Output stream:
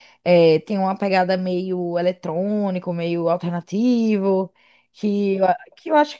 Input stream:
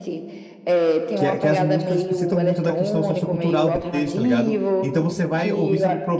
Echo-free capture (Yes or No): No